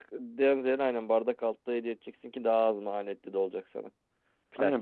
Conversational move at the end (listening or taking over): taking over